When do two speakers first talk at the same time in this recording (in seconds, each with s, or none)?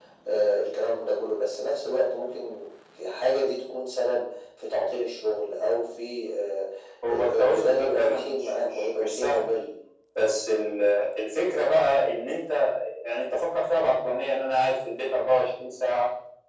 7.1 s